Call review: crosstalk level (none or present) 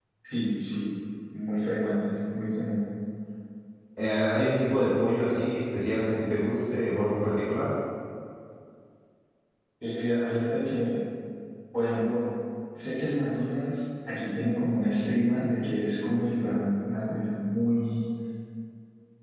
none